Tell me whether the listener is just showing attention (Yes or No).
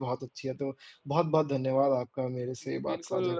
No